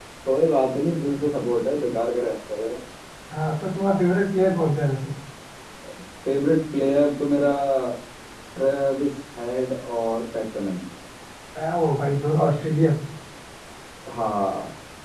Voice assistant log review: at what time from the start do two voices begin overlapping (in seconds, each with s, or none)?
none